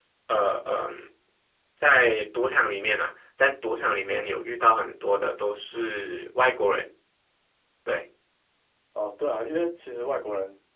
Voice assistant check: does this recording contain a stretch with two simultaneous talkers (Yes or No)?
No